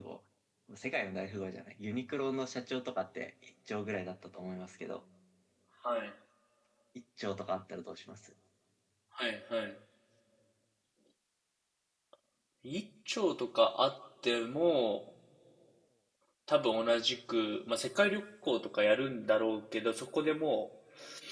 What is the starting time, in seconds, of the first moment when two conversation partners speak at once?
none

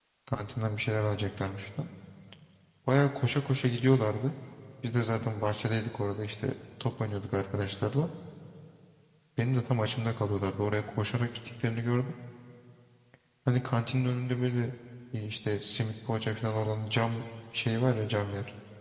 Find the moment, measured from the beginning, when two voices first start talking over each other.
none

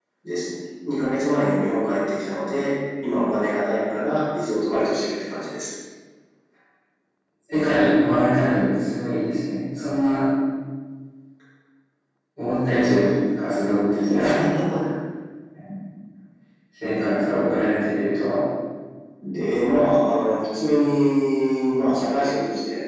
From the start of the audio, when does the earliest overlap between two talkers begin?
none

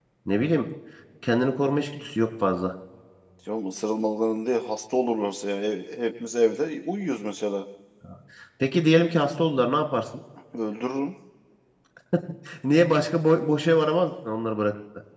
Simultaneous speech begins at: none

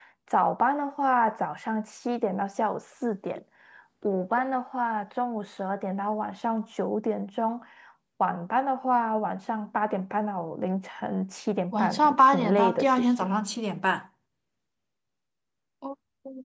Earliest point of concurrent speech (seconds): 11.7 s

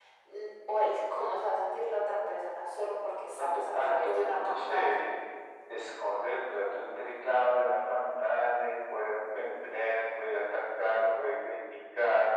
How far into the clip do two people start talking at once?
3.4 s

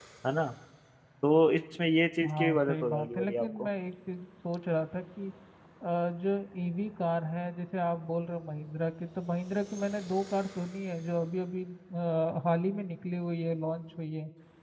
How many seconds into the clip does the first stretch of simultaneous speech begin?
2.2 s

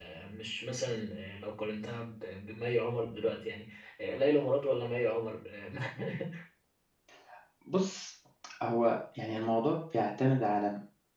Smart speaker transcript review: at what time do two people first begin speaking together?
none

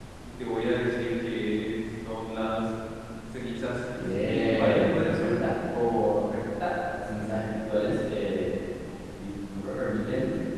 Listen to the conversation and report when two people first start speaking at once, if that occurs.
4.0 s

